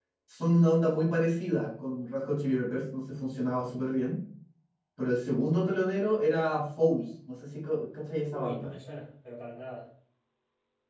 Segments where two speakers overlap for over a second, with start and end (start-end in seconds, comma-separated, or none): none